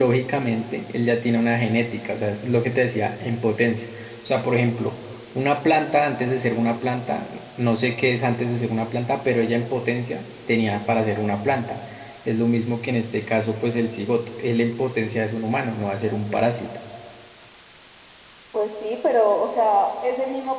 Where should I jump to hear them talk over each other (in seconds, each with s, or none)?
none